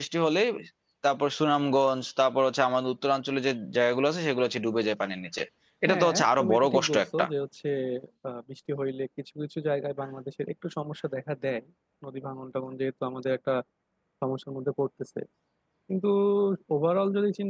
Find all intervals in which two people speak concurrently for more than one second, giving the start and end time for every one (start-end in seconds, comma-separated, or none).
5.9-7.2